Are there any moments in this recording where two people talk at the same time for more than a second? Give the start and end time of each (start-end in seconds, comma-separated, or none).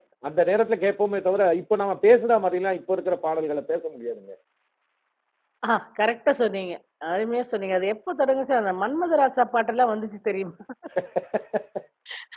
none